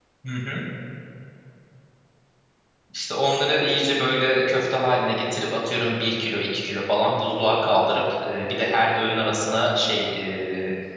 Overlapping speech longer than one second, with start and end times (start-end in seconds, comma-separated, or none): none